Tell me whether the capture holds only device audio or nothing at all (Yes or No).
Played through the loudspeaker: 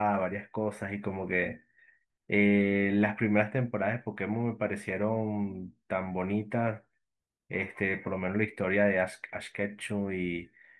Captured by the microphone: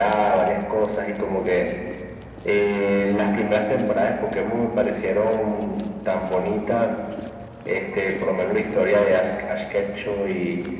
Yes